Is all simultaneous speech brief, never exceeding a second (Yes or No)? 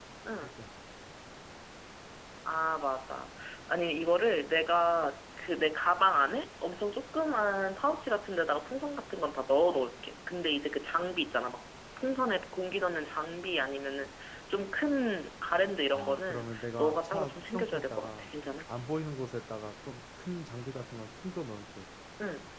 No